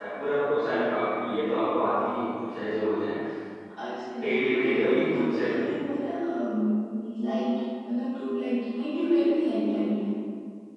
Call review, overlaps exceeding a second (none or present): present